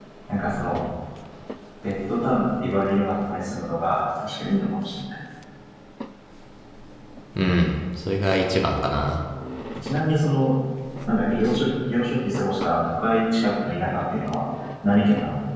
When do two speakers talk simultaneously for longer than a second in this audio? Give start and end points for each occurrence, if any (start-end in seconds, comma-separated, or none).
none